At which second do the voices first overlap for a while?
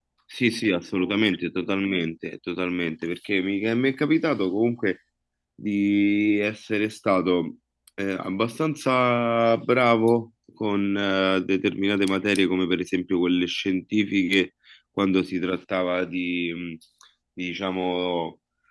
none

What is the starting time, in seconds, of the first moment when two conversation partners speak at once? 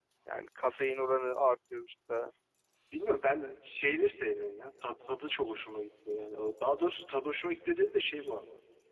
none

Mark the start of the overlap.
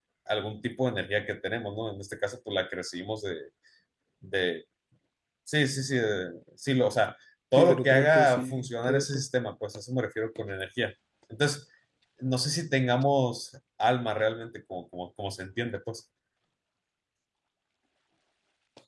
8 s

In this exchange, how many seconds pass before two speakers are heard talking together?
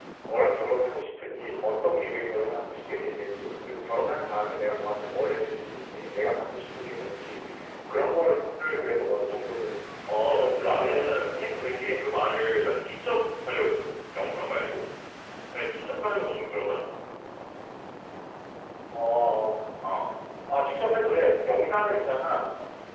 10 s

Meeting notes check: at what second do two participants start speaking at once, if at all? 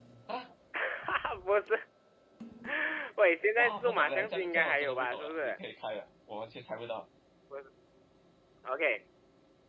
4 s

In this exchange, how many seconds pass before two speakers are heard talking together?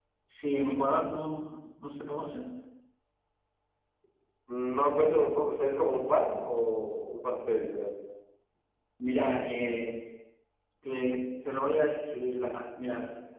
none

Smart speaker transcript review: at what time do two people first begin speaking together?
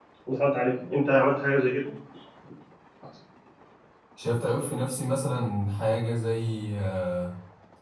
none

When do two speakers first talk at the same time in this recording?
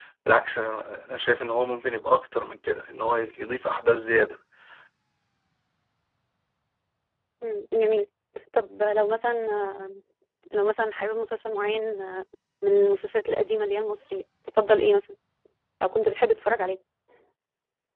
none

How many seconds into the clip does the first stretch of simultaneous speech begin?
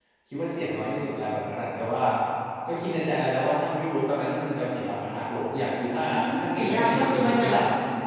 6 s

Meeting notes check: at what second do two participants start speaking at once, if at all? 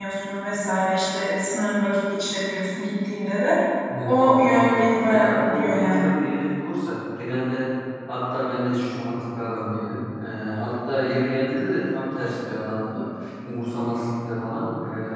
4 s

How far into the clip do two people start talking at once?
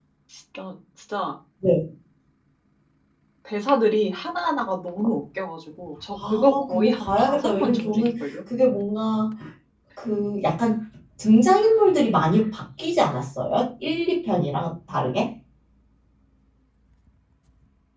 6 s

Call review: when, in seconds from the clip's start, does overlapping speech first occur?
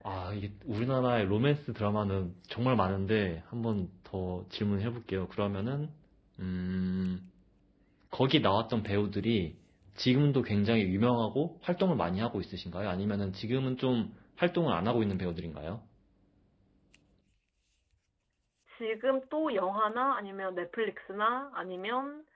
none

